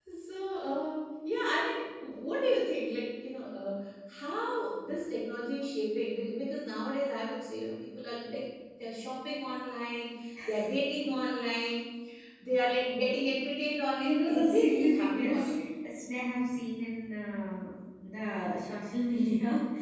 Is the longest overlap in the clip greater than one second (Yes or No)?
Yes